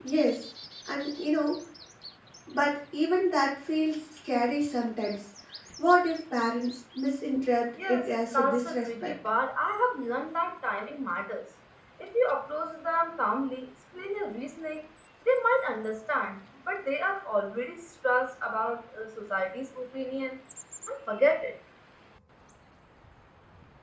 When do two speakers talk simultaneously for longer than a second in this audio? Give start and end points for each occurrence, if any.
7.9-9.1

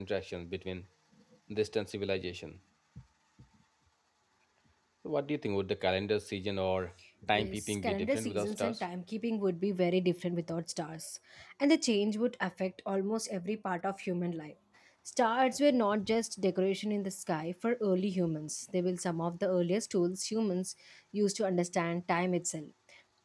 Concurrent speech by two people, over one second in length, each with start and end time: 7.3-8.8

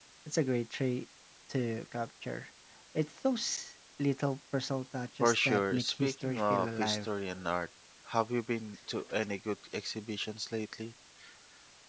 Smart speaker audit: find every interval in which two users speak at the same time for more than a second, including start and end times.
5.2-7.1

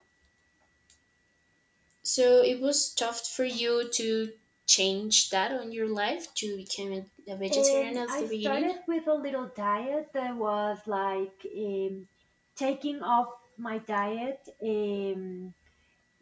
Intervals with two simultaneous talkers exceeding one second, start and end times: 7.5-8.7

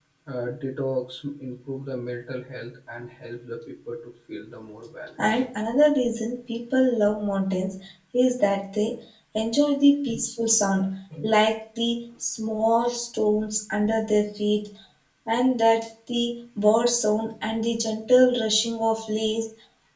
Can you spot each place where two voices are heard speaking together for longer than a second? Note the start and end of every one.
none

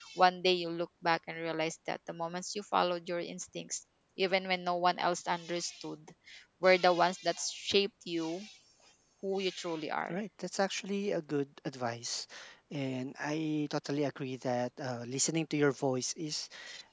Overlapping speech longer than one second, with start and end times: none

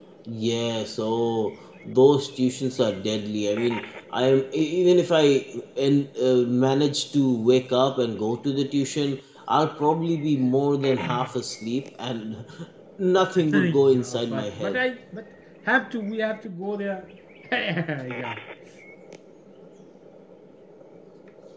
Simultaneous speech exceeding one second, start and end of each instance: 13.5-14.8

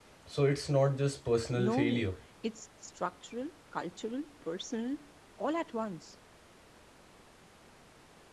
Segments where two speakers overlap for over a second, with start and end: none

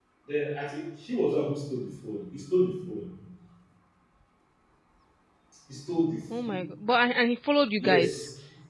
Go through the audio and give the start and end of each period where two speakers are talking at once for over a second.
none

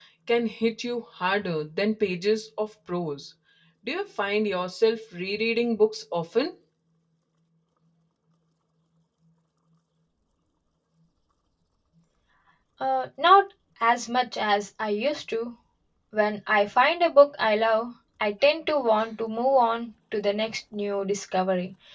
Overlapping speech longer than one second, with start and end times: none

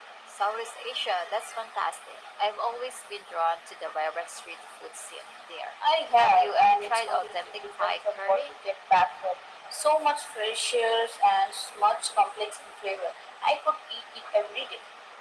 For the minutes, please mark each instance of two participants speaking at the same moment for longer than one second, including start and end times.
6.2-8.5

